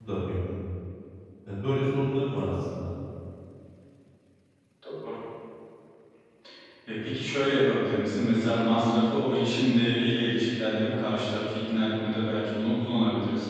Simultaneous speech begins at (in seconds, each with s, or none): none